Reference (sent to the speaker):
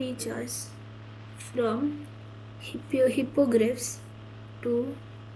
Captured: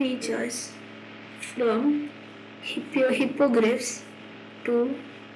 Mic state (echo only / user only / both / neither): echo only